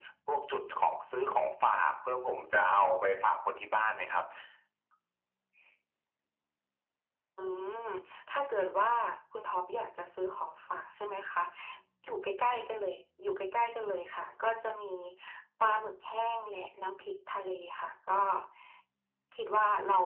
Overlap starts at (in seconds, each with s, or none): none